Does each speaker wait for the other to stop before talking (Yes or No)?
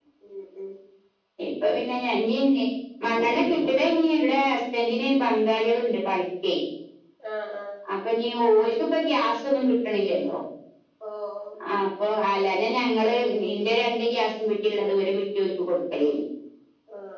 Yes